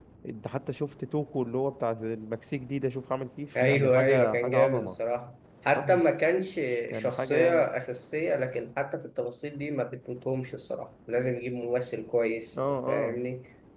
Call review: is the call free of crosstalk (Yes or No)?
No